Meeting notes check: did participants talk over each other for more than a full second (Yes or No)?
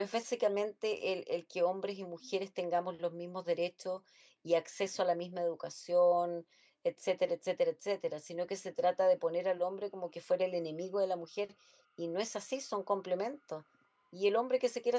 No